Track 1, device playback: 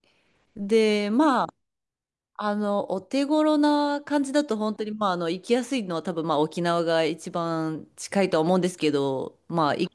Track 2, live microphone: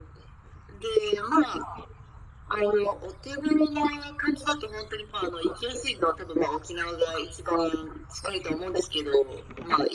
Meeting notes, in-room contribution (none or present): none